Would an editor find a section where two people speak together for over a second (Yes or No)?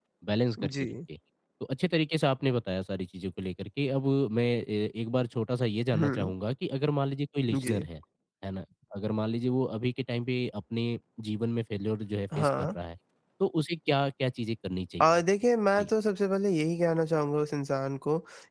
No